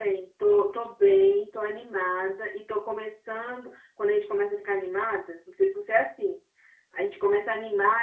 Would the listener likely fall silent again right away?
Yes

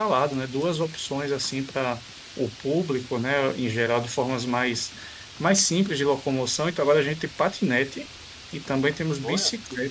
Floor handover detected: No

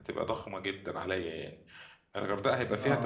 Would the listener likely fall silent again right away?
Yes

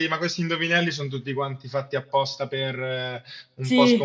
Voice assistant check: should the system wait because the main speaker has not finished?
Yes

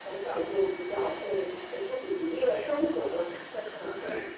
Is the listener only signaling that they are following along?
Yes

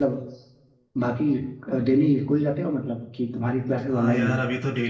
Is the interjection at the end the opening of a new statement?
Yes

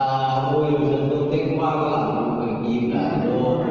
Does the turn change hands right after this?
Yes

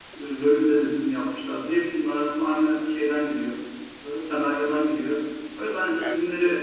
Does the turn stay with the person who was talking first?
Yes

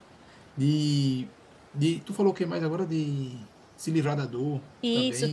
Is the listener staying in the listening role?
No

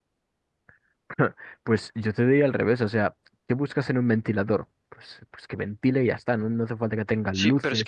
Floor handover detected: Yes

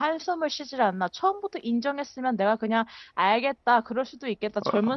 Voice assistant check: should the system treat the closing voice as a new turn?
No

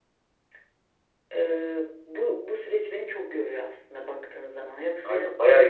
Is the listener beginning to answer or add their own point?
Yes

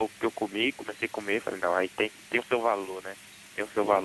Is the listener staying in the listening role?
No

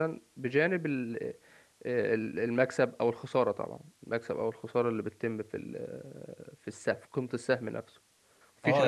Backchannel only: No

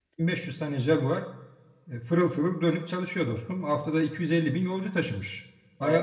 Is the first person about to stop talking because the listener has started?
No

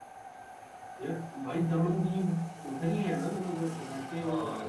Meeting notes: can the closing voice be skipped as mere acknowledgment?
No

